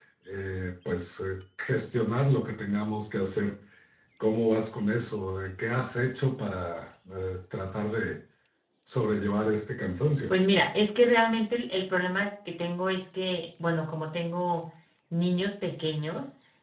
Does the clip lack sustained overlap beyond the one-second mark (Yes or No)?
Yes